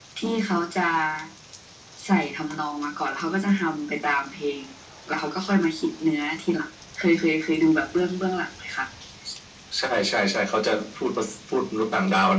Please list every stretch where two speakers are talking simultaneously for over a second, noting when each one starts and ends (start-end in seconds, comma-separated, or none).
none